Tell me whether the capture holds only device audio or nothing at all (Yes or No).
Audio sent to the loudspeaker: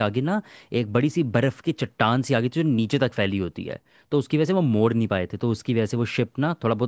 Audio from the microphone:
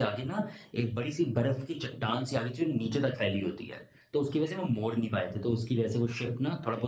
Yes